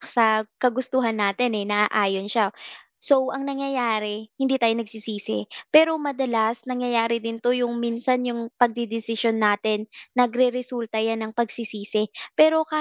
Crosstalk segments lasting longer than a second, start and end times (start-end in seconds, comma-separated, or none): none